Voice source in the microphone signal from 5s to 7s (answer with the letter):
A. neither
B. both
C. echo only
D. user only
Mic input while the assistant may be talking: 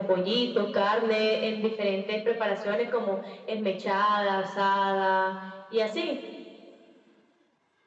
C